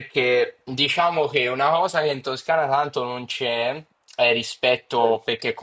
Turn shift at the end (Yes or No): No